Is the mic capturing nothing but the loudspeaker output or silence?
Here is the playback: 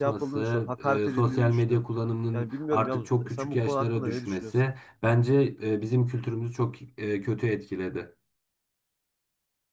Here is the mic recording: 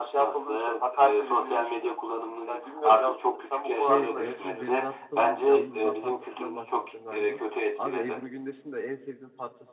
No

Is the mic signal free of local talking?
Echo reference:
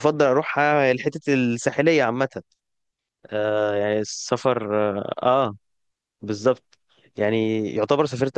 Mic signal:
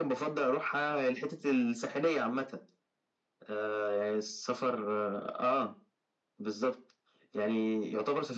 Yes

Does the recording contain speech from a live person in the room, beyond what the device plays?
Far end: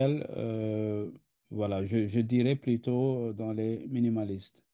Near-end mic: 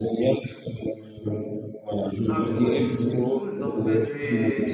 Yes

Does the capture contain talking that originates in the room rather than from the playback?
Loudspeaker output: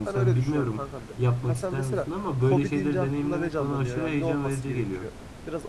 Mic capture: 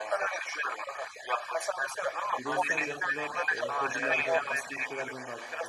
Yes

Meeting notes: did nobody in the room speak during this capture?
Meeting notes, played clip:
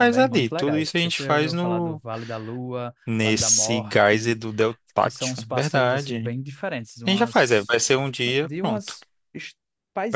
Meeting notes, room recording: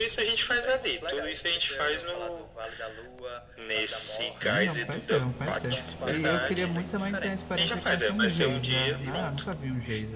No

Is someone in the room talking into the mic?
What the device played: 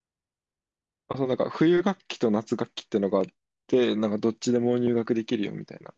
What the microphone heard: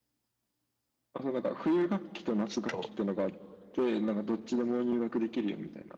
Yes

